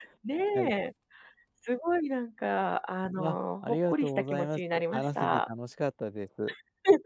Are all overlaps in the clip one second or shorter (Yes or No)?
No